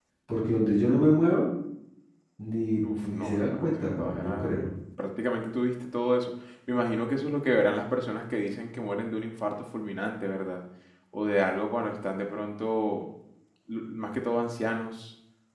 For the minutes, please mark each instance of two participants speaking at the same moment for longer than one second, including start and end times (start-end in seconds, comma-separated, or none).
2.8-4.5